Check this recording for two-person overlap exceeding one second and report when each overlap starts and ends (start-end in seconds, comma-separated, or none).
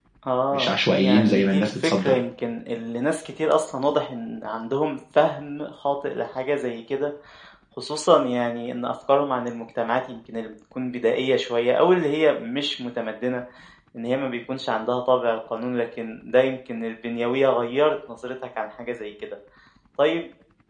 0.5-2.2